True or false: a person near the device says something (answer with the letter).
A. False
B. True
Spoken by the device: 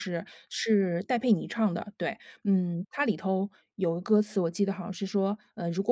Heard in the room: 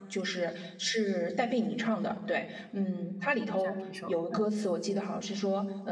B